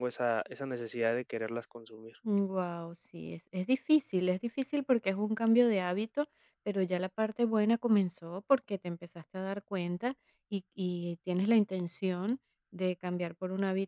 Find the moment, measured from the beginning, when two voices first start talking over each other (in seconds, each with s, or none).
none